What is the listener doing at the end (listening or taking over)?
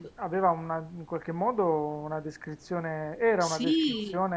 listening